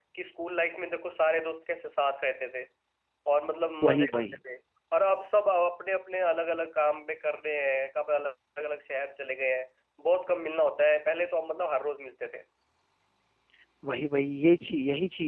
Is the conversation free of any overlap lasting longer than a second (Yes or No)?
Yes